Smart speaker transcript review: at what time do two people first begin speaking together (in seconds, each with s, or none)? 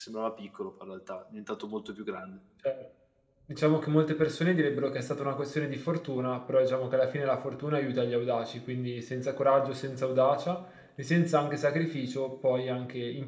none